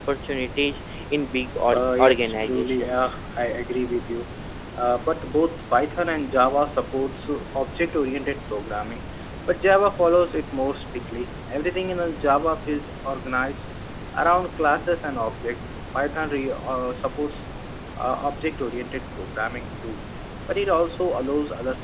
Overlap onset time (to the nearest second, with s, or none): 2 s